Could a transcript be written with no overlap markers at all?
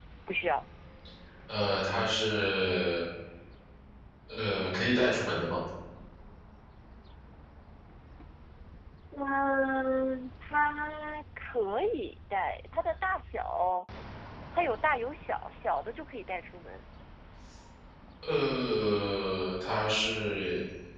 Yes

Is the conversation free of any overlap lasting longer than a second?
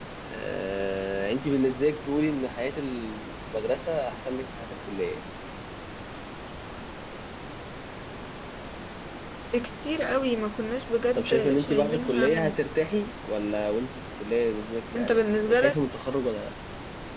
No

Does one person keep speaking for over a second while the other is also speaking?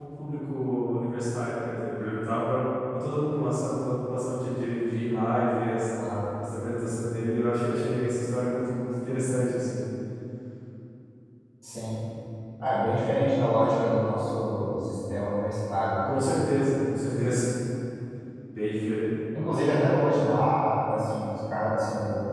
No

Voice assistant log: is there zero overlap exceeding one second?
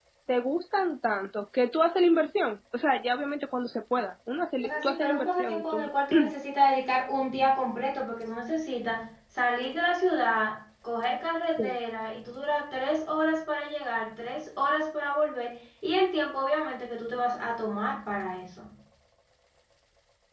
No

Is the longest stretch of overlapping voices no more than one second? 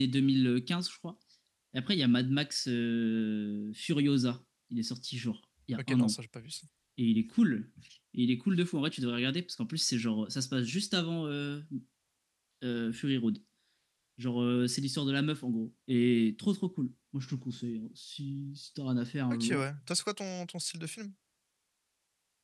Yes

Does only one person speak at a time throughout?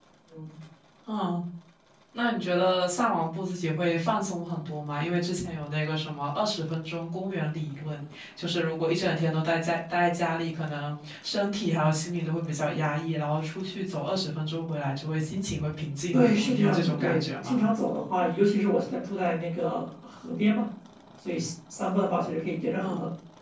No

